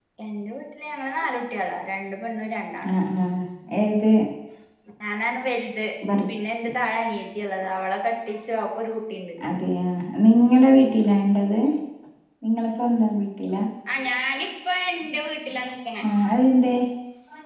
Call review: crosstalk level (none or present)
none